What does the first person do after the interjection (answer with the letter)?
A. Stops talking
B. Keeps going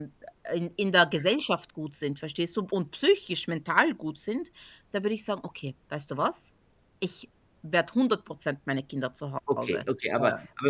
A